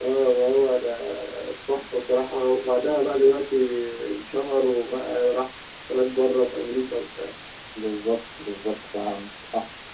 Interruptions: none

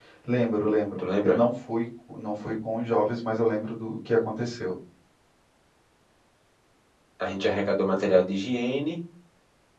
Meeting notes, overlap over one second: none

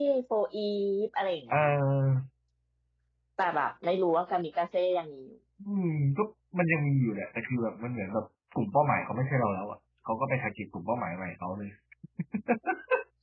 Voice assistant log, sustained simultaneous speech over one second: none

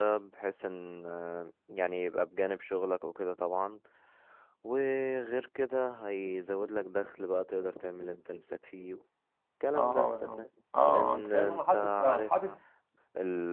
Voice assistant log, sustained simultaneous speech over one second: present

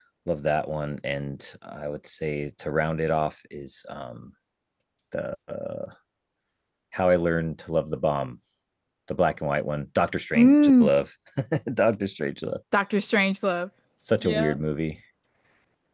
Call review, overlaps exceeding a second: none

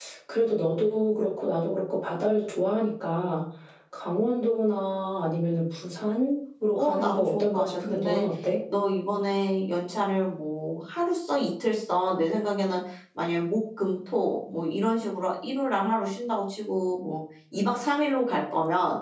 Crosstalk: present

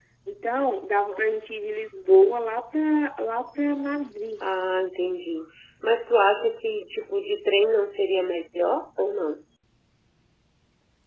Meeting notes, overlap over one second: none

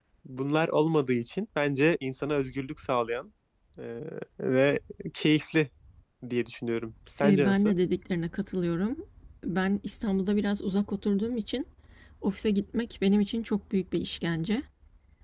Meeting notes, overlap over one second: none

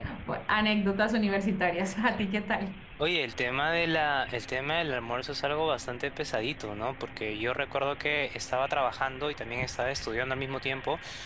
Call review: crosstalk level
none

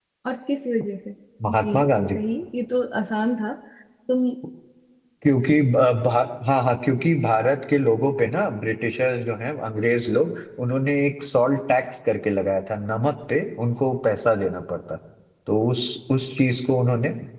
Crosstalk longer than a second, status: none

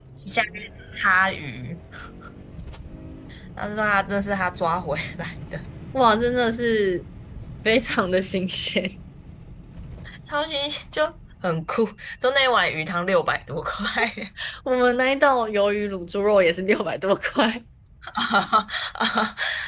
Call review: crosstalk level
none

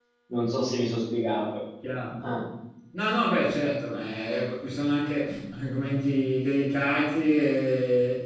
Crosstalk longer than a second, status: none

